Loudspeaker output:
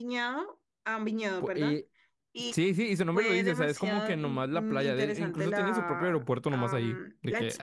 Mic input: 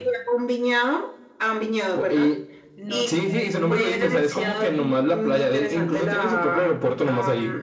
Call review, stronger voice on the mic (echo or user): echo